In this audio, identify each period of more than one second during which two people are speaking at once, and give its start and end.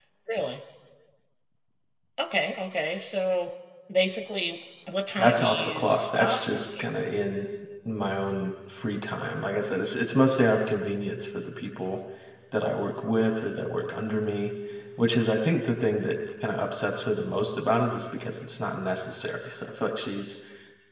5.2-6.9

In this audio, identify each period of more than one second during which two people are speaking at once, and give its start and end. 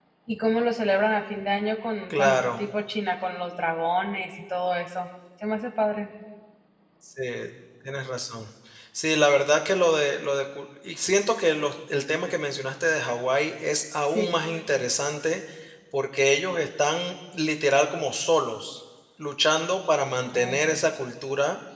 none

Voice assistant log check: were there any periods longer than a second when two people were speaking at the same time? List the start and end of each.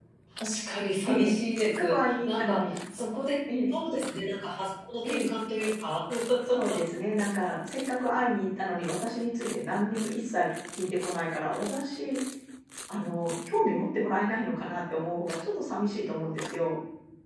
1.0-2.8

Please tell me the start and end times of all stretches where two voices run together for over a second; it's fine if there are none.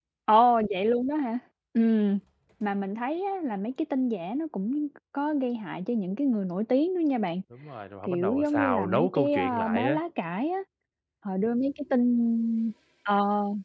8.1-10.0

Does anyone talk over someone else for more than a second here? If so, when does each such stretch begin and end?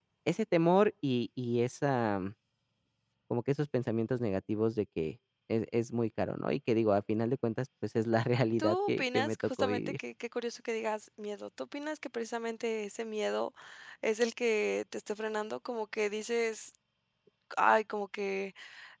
8.6-9.8

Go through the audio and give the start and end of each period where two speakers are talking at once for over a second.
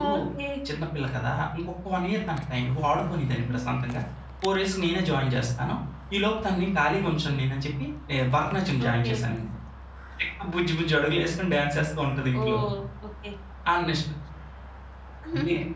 none

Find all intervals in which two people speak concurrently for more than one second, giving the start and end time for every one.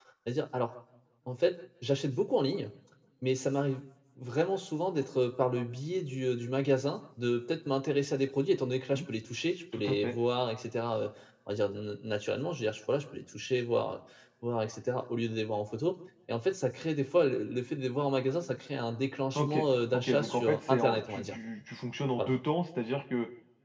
19.9-21.4

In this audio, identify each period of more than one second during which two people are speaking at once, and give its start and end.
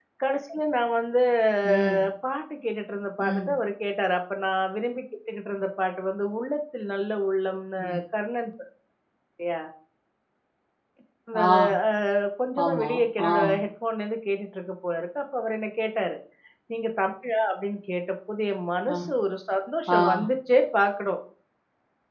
none

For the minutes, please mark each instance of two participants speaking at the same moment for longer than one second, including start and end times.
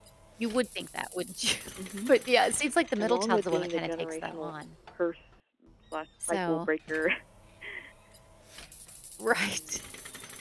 3.0-4.5

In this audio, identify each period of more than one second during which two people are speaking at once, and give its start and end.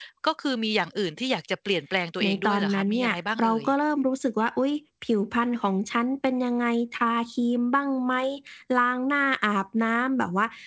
2.2-3.6

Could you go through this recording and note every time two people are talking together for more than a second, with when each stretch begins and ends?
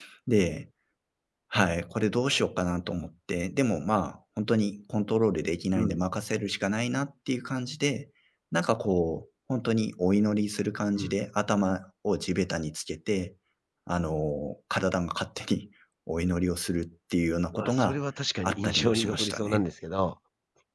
18.4-19.6

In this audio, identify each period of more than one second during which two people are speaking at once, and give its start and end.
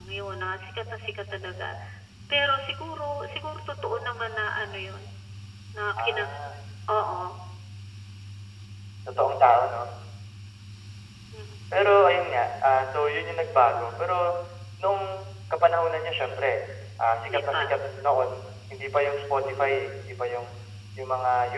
none

